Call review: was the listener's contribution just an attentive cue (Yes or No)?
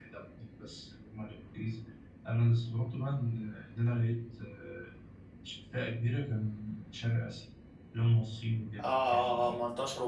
No